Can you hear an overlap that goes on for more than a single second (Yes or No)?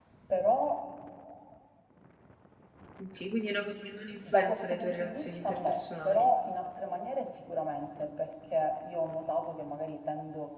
Yes